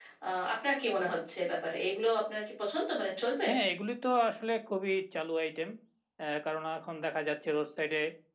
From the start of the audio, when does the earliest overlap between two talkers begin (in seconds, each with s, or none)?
none